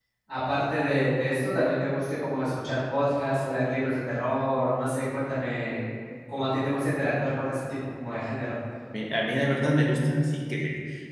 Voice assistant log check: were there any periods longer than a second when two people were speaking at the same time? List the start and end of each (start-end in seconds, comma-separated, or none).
none